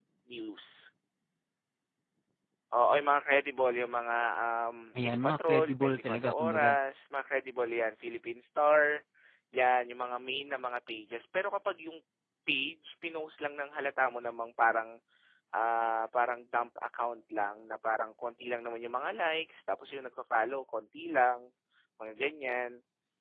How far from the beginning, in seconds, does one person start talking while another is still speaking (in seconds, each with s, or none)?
5.0 s